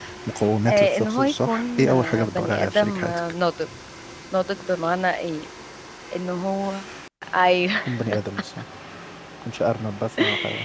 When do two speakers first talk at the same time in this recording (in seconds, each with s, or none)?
0.7 s